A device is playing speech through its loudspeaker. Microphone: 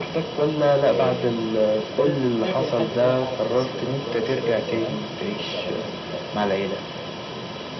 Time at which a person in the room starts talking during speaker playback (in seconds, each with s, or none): 0.9 s